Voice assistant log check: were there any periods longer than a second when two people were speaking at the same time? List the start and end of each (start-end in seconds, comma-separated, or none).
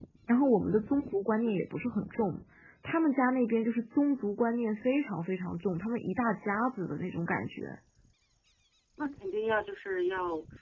none